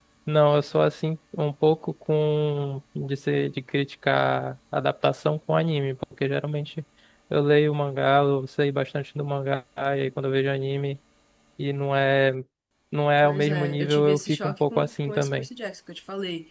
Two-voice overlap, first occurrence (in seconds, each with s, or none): 13.2 s